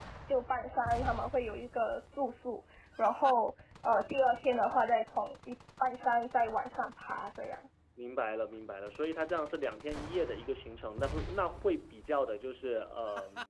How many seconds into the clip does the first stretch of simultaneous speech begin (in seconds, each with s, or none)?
none